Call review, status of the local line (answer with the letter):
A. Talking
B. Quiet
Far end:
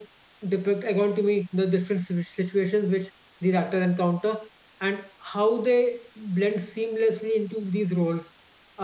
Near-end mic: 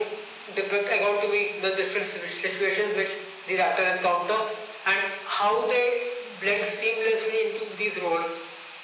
B